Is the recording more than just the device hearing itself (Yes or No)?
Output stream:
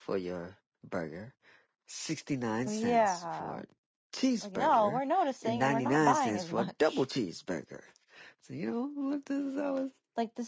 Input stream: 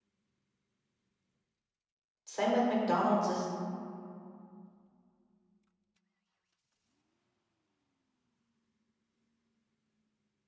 Yes